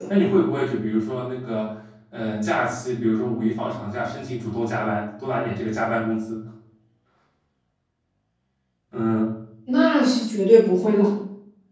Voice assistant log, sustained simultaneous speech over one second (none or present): none